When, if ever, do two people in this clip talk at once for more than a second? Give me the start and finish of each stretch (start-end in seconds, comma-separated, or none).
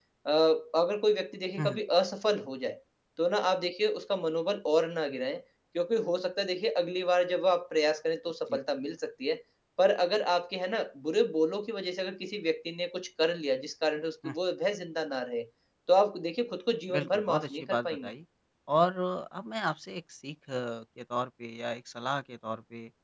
16.9-18.1